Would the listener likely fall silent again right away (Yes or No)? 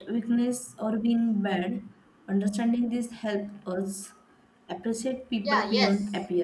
No